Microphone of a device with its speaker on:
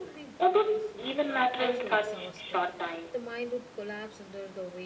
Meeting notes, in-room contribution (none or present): present